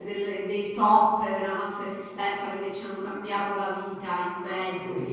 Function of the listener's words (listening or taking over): listening